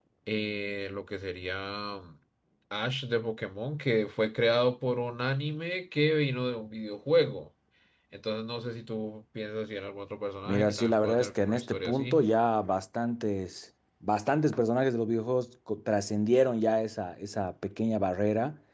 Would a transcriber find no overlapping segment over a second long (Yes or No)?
No